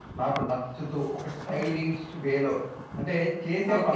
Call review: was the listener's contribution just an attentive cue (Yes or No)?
No